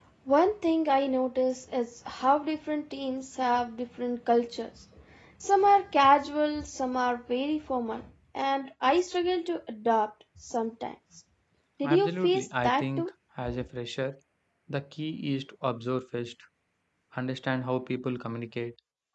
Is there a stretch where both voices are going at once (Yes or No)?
Yes